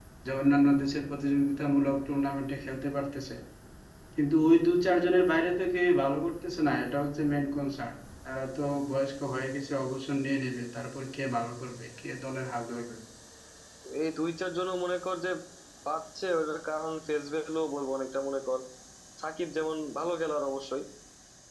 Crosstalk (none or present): none